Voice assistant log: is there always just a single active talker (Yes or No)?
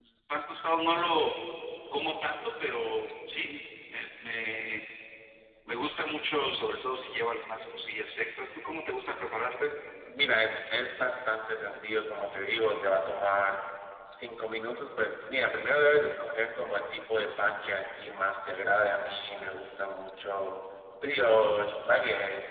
Yes